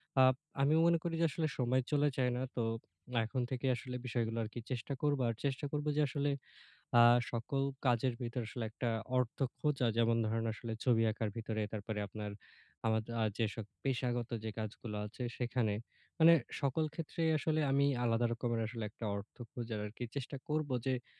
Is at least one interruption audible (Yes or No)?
No